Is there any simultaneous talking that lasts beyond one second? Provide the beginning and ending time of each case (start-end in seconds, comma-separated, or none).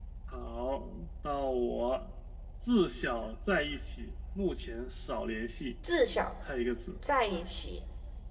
none